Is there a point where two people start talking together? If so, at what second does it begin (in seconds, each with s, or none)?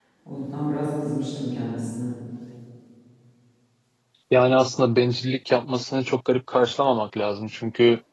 none